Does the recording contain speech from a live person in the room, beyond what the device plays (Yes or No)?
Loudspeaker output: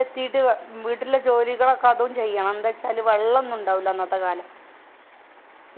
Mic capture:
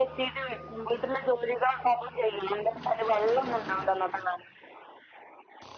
No